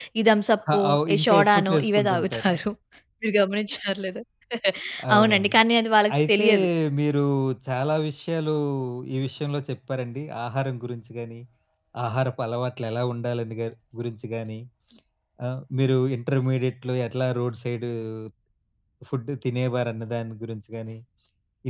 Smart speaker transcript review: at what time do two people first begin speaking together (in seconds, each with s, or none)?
0.7 s